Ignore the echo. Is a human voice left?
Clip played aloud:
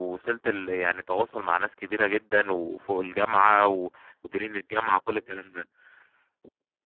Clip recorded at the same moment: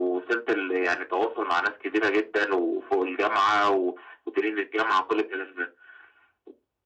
No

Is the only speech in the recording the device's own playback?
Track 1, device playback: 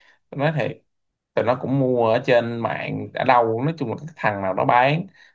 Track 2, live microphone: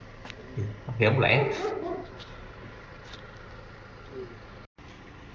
No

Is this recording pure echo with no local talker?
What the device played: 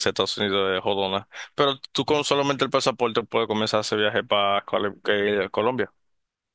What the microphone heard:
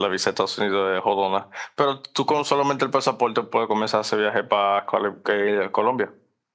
Yes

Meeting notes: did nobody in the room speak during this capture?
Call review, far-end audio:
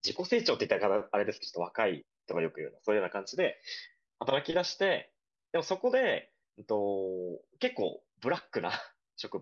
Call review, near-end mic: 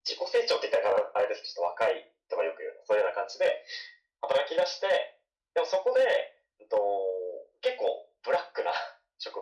Yes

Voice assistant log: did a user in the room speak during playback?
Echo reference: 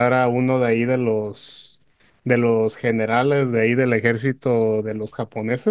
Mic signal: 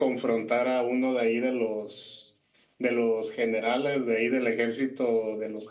No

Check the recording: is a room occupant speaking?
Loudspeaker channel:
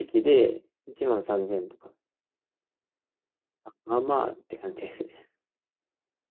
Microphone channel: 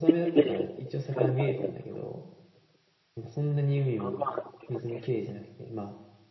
Yes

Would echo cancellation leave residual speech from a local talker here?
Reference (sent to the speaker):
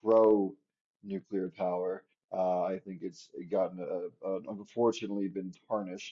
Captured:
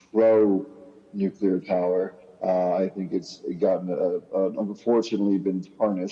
No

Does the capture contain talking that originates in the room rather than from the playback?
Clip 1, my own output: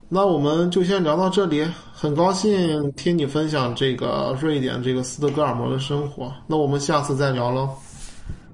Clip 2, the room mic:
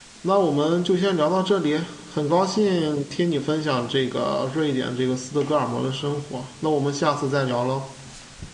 No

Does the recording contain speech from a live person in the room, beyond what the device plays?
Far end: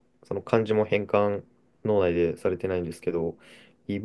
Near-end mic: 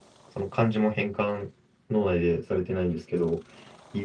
No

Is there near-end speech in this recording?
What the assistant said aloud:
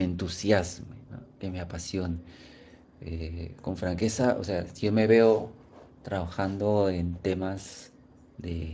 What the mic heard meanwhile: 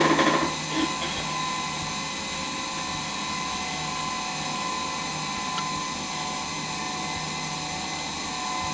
No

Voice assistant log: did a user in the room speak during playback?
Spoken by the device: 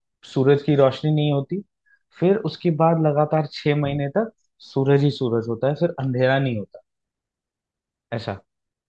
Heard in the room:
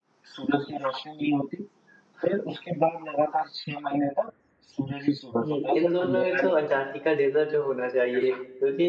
Yes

